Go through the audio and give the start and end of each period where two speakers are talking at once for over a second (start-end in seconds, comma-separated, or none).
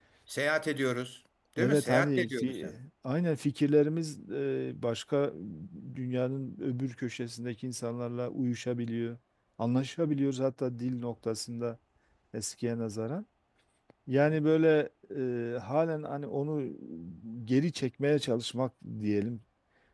1.6-2.8